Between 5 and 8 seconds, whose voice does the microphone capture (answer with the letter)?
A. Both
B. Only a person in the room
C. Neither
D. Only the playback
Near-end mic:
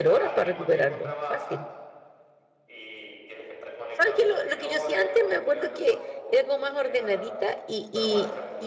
A